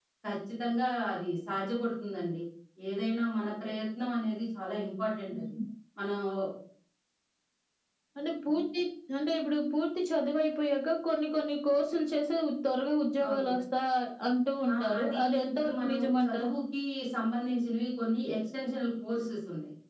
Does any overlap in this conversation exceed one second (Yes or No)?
Yes